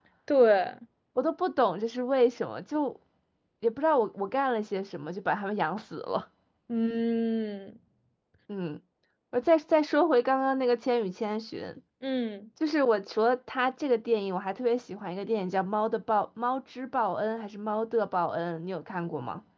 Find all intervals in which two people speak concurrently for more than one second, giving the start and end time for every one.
none

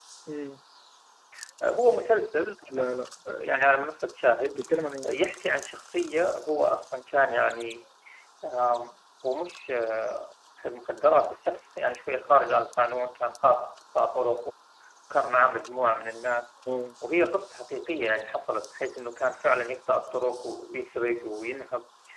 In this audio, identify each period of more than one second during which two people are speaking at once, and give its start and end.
none

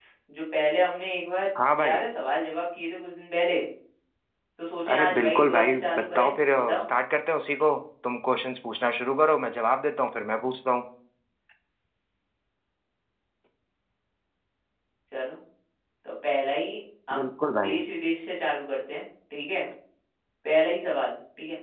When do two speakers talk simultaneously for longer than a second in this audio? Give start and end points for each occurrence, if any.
4.9-6.8

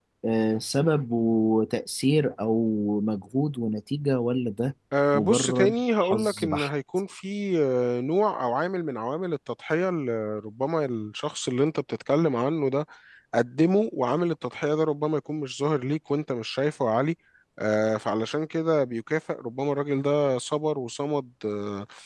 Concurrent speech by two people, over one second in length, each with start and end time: 5.1-6.7

